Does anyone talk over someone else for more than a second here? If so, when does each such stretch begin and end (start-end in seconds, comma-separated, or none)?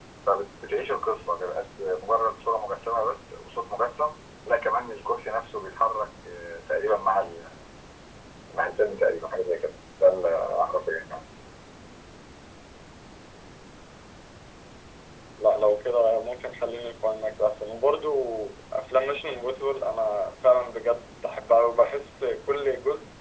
none